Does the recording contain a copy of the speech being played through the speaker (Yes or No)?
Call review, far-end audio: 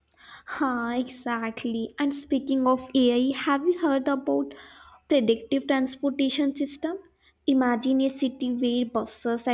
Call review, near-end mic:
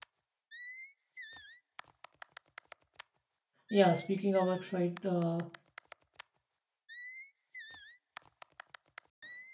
No